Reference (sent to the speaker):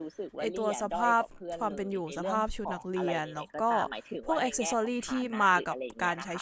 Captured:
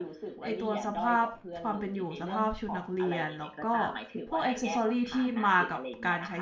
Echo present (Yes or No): Yes